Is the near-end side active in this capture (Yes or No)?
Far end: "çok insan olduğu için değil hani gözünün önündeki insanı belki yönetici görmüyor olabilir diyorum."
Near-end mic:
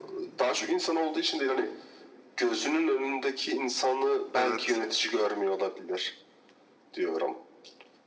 Yes